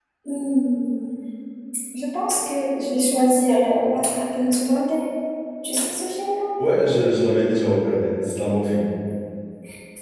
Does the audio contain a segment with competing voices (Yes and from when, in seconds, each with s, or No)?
No